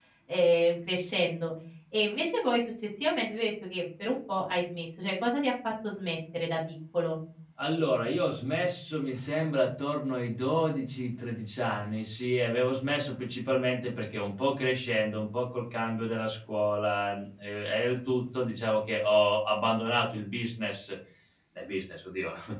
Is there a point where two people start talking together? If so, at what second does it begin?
none

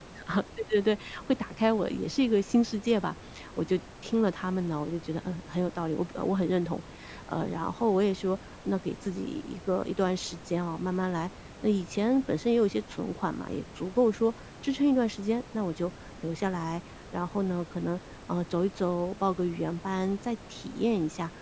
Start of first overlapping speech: none

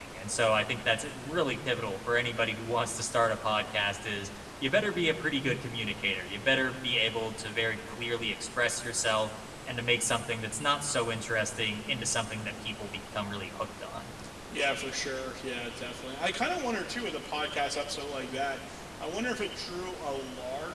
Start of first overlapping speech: none

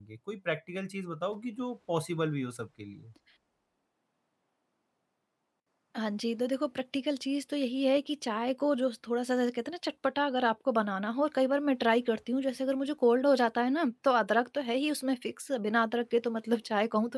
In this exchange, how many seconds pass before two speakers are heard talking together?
none

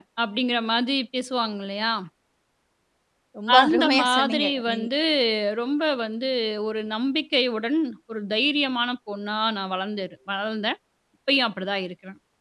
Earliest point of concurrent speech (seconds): 4 s

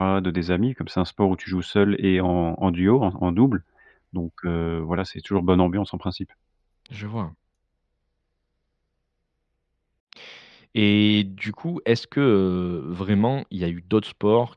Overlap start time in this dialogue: none

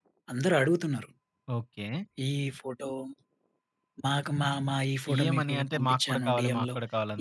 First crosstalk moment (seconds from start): 5 s

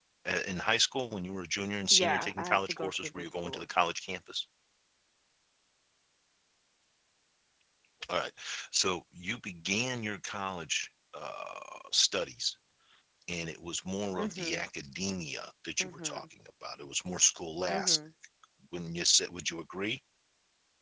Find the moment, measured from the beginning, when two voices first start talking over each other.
2 s

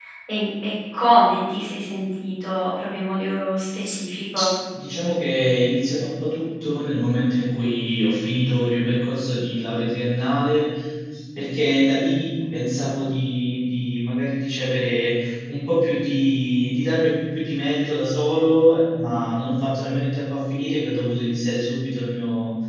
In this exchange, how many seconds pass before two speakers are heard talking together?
none

